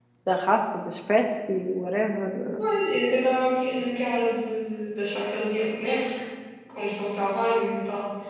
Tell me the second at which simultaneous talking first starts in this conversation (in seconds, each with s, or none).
none